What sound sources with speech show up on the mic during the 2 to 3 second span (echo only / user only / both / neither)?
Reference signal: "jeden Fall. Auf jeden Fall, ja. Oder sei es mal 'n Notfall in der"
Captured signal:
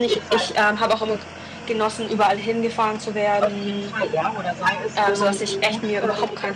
user only